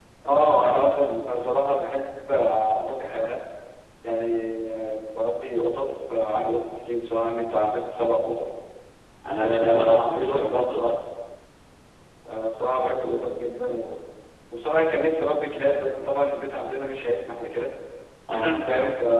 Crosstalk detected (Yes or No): Yes